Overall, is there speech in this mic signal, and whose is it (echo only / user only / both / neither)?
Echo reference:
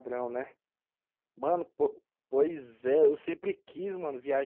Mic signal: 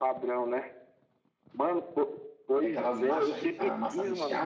both